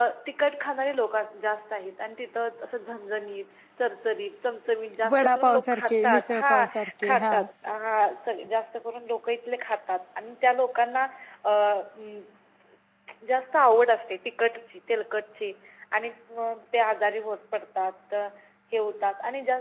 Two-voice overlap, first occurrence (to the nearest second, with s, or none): 5 s